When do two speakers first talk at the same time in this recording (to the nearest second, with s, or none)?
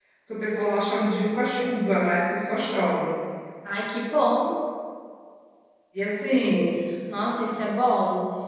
none